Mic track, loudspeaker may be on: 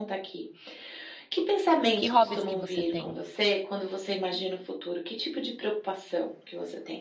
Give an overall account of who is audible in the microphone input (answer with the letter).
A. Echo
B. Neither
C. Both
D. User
C